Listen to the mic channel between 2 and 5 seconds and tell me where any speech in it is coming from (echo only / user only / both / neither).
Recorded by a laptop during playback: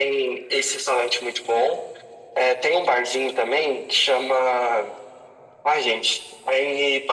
echo only